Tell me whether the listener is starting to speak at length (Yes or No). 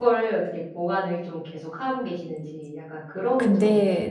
Yes